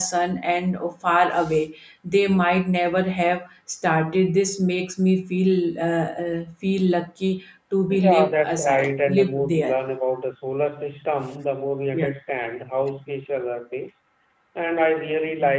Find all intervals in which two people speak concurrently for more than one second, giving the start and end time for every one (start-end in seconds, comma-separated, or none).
7.9-9.8